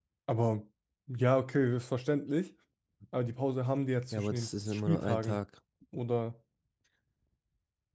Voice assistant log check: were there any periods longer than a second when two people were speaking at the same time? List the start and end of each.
4.1-5.4

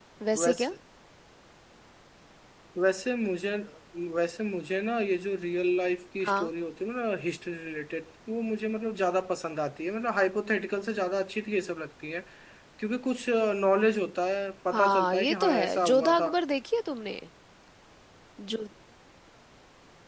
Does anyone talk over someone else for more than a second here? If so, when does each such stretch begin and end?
14.7-16.3

